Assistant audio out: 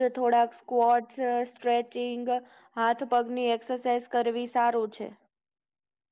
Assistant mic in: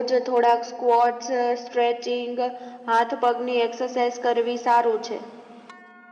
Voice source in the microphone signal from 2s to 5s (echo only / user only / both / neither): echo only